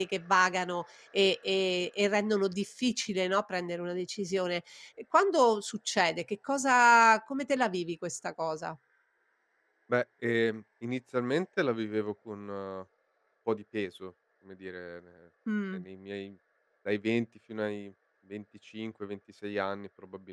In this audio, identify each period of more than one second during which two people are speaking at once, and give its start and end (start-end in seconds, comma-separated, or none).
none